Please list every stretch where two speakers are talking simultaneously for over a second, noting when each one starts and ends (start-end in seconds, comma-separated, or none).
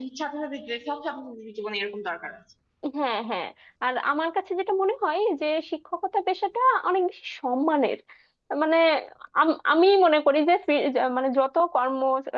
none